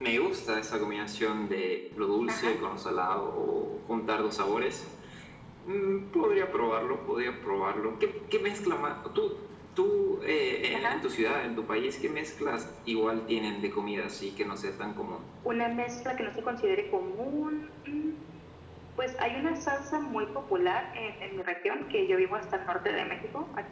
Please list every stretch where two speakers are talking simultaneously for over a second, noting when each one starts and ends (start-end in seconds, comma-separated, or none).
none